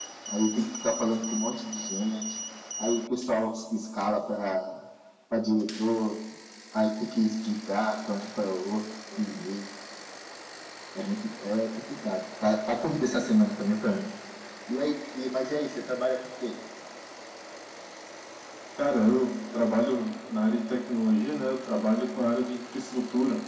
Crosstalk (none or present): none